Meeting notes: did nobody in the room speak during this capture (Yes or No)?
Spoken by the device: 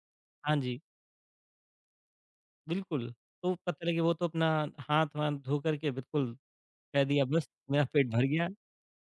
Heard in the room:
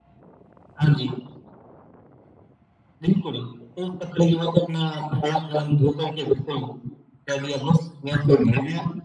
Yes